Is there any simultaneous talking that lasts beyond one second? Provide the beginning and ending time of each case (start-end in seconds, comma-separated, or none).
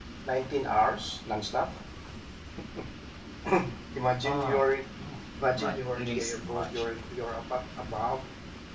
5.5-6.8